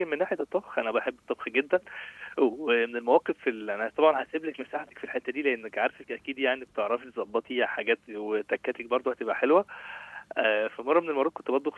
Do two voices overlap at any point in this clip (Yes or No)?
No